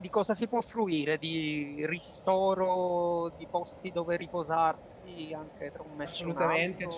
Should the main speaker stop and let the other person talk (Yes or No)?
Yes